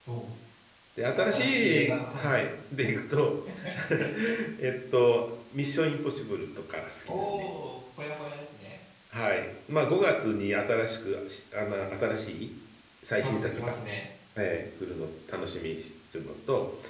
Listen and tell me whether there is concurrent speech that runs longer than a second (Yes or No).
Yes